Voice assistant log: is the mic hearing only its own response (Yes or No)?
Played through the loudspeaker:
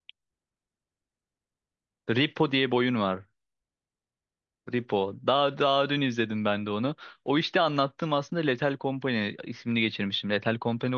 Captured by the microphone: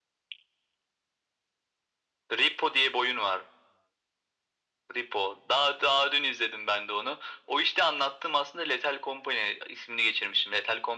Yes